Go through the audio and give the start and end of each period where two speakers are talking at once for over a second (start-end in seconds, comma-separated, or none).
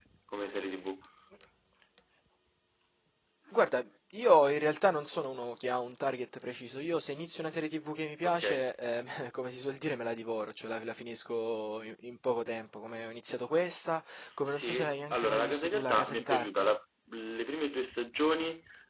14.4-16.7